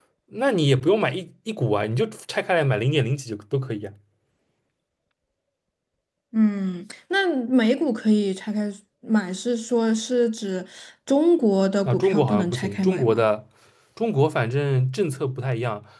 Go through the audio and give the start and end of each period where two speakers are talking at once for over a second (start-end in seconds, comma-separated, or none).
11.8-13.2